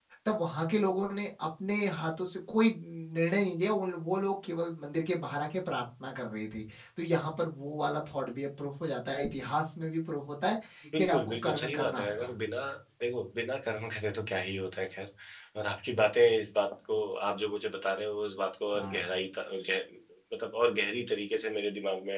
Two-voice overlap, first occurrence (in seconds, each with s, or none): 11.0 s